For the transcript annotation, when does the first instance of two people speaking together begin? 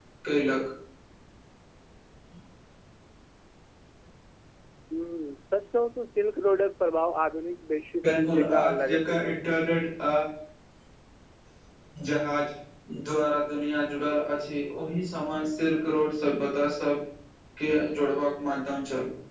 8 s

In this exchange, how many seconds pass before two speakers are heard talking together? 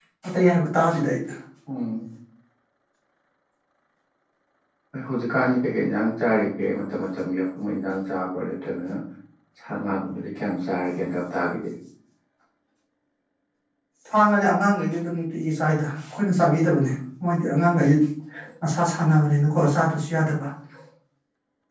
none

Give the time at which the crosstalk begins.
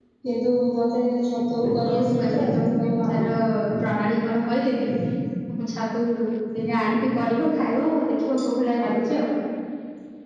2 s

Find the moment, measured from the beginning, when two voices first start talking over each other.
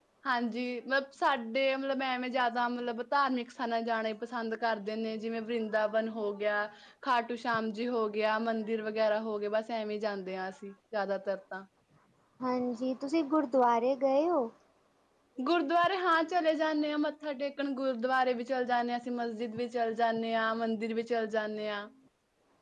none

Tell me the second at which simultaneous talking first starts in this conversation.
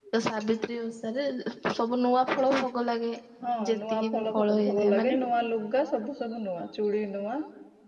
4 s

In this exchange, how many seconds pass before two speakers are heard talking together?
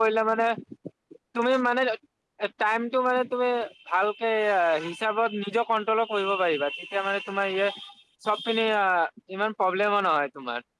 none

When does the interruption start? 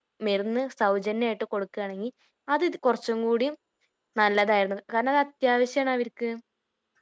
none

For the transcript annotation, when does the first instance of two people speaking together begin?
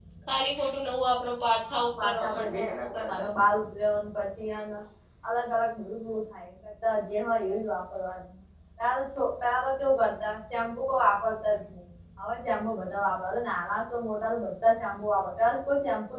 2 s

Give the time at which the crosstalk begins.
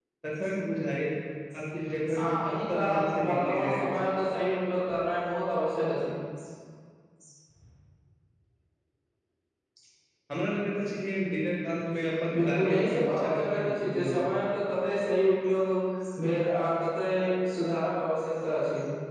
2 s

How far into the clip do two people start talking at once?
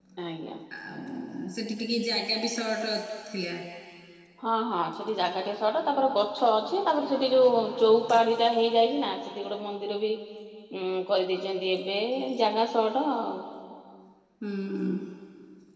none

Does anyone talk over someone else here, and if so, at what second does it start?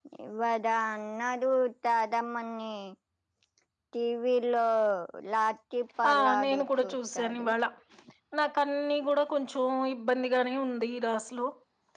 6 s

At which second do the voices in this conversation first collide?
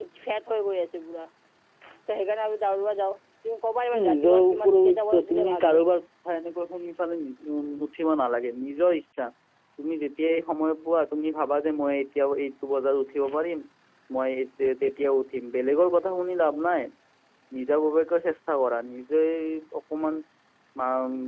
4 s

